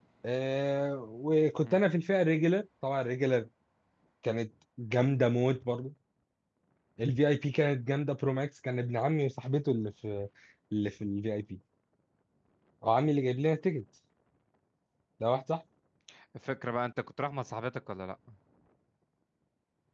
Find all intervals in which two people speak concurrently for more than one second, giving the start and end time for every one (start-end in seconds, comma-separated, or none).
none